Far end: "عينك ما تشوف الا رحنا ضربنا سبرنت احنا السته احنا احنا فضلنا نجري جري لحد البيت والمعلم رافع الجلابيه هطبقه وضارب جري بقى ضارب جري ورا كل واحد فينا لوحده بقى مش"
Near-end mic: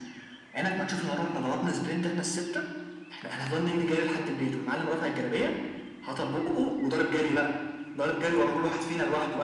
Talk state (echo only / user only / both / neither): echo only